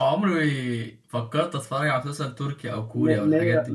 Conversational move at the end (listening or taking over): taking over